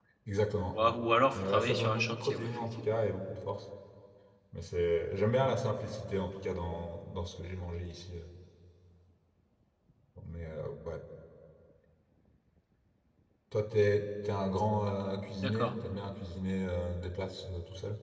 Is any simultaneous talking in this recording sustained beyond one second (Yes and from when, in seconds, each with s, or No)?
Yes, from 1.3 s